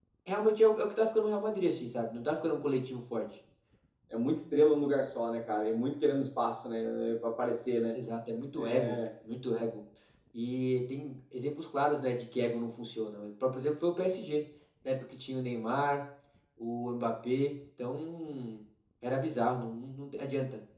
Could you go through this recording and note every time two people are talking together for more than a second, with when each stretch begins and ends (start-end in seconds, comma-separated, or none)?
none